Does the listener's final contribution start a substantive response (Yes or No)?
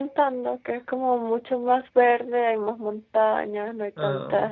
No